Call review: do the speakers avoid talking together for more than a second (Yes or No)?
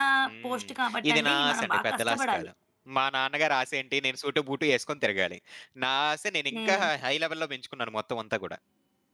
No